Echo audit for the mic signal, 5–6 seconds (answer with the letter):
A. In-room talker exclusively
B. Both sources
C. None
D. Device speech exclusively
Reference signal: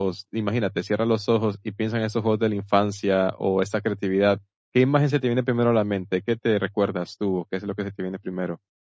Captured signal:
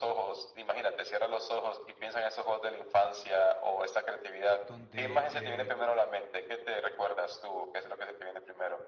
B